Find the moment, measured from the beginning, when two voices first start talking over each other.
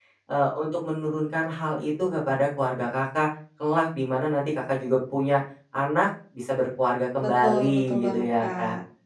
7.2 s

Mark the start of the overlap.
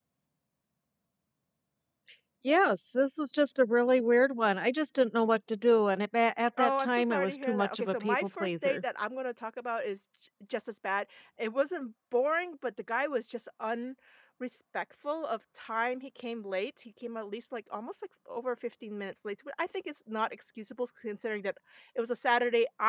6.6 s

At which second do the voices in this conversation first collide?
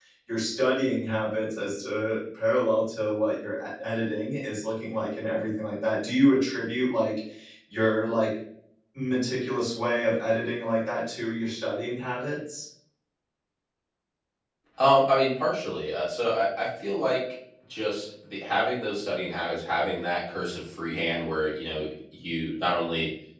none

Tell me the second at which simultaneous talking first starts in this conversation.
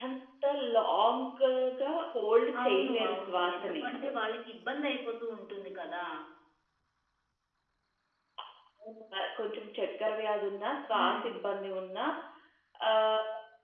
2.6 s

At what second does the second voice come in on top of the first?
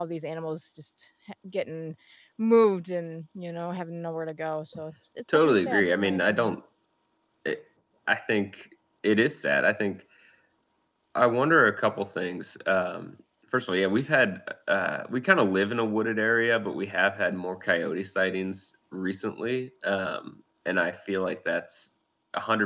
5.3 s

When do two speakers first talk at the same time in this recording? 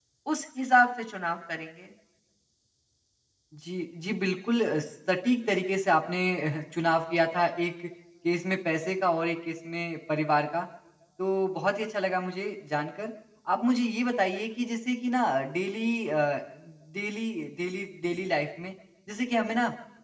none

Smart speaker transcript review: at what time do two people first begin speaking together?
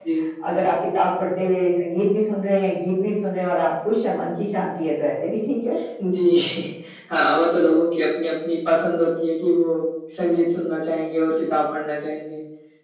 none

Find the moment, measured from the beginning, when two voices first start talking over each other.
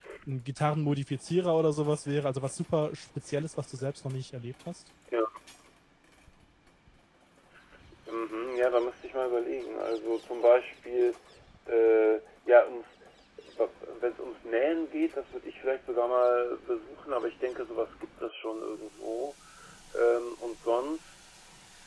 none

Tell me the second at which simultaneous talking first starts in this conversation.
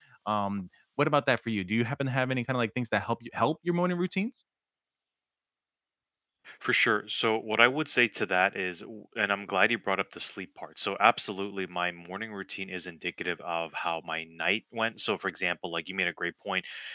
none

